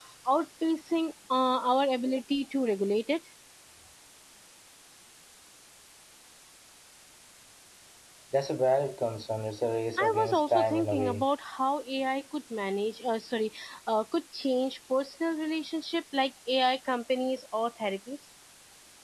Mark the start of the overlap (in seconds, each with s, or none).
10.0 s